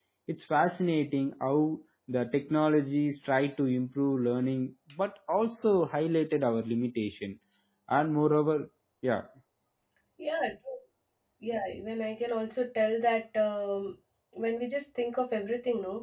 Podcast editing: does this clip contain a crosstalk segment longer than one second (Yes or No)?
No